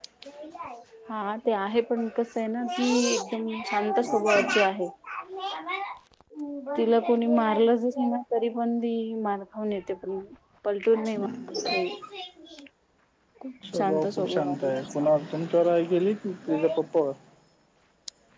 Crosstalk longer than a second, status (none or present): present